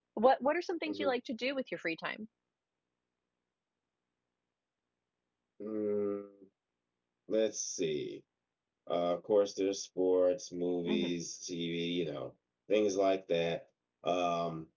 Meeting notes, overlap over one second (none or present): none